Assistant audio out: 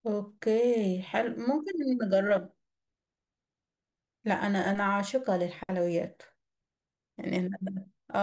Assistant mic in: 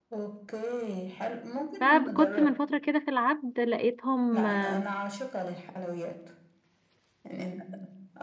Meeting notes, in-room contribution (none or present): present